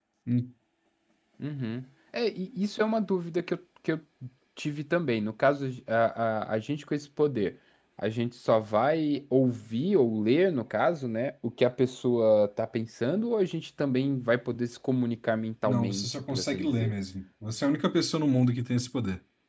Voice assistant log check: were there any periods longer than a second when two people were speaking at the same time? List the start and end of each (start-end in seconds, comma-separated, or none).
15.6-16.9